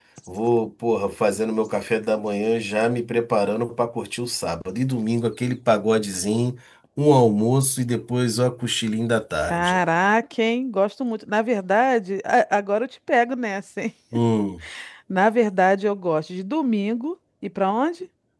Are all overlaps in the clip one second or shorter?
Yes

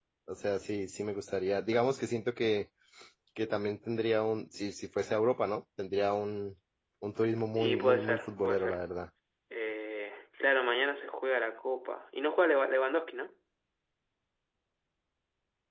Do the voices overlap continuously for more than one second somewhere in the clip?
Yes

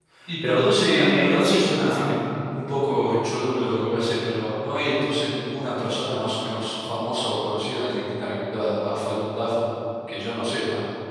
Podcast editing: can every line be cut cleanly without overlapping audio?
No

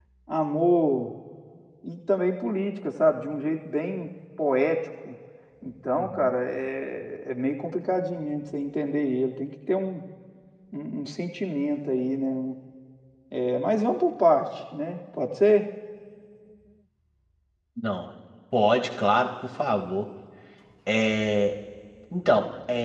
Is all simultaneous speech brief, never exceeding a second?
Yes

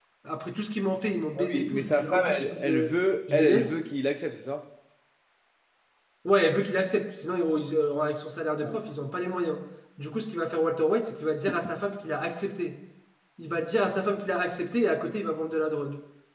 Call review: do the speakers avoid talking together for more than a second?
No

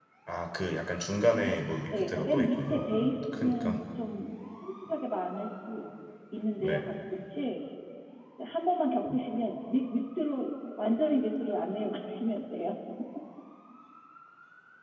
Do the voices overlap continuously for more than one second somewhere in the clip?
Yes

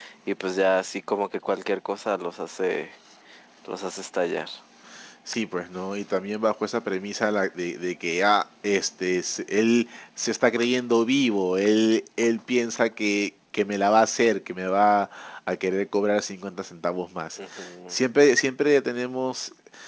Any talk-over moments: No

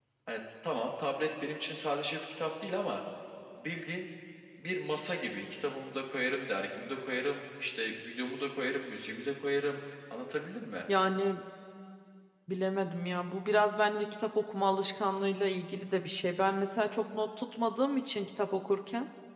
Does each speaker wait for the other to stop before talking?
Yes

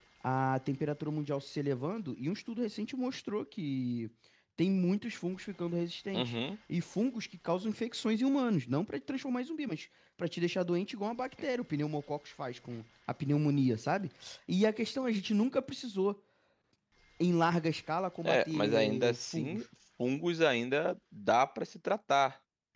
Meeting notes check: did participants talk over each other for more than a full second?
Yes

